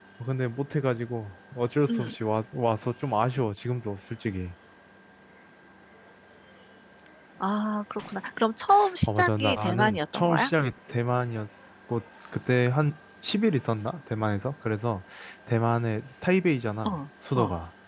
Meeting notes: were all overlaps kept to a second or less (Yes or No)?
No